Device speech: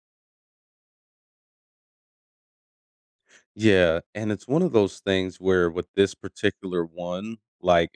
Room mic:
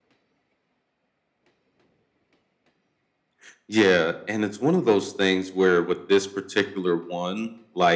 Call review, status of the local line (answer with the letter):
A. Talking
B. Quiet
B